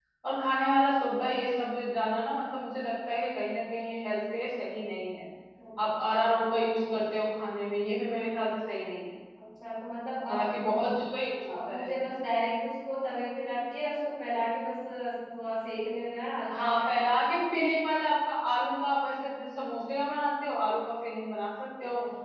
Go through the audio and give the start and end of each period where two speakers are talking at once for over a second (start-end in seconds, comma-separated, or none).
none